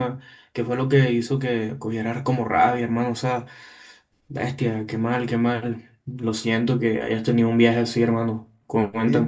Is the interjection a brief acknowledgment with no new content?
No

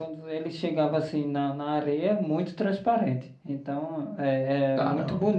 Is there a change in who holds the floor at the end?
No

